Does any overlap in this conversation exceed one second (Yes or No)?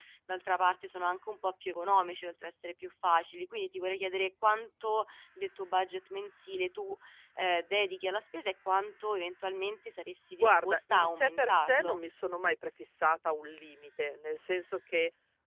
Yes